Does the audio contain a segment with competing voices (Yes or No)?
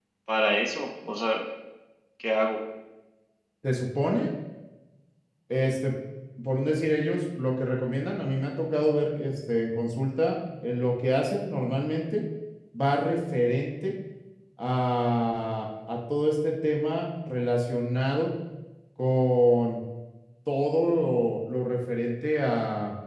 No